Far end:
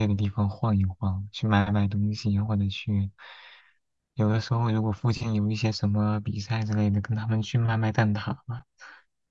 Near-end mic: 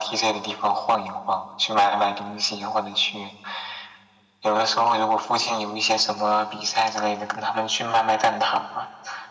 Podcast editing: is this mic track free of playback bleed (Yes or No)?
No